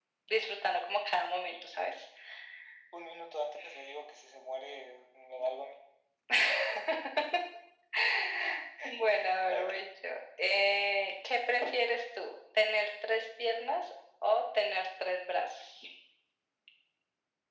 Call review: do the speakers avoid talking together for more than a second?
Yes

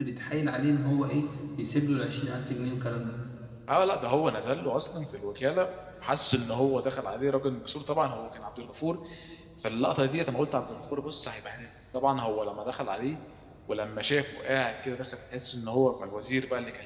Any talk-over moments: No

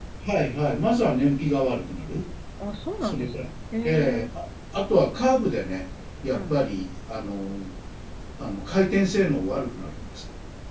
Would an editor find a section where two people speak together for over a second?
No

